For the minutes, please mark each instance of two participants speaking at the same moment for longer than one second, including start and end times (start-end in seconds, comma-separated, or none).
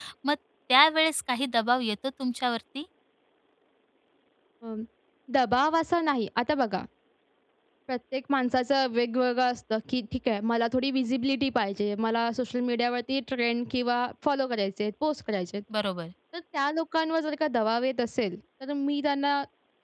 none